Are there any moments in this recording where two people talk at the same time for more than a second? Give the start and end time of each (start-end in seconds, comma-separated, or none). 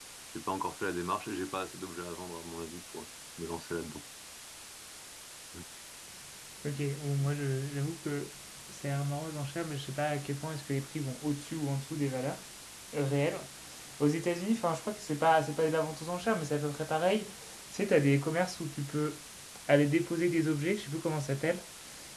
none